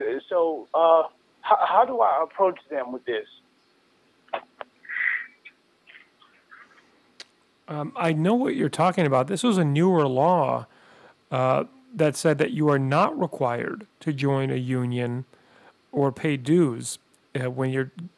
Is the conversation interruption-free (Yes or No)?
Yes